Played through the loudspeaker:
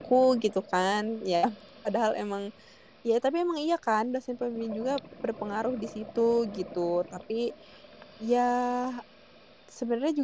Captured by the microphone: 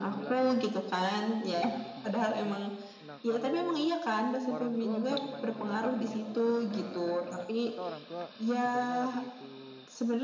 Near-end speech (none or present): present